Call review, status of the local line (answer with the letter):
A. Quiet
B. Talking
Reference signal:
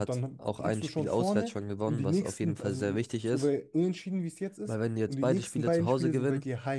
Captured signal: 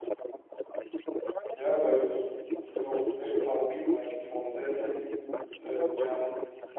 B